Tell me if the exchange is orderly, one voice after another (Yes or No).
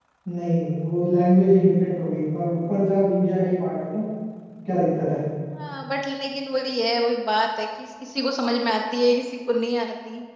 Yes